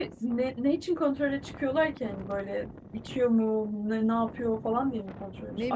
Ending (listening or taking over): taking over